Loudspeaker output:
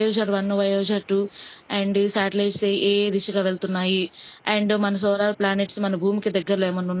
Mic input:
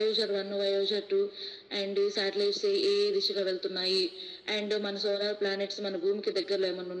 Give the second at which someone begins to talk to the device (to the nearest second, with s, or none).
none